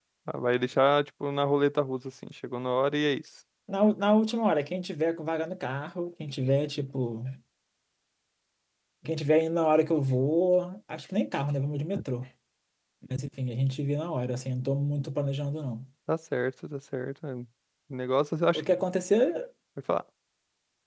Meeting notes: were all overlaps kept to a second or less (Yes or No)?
Yes